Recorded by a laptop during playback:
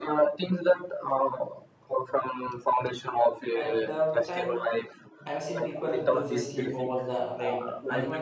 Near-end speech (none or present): present